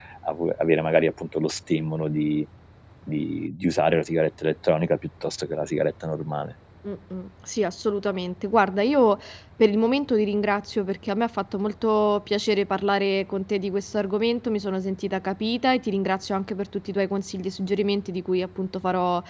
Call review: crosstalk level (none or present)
none